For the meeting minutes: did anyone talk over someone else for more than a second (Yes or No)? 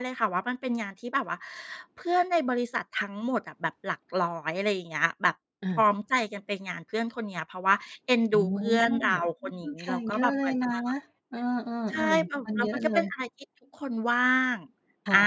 Yes